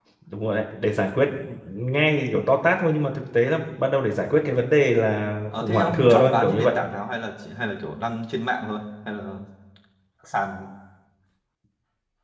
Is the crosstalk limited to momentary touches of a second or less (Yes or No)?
No